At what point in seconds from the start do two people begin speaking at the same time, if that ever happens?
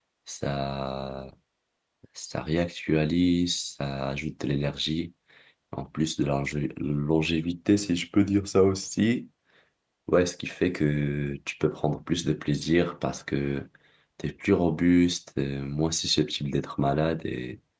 none

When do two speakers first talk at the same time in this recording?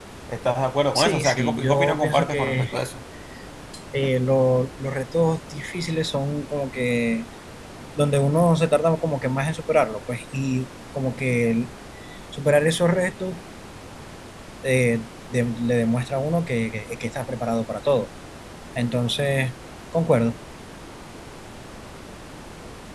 1.0 s

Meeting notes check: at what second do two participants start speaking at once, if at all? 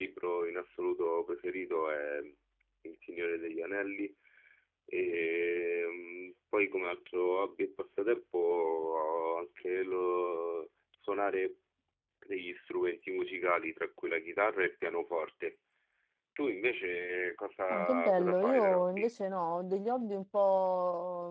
17.7 s

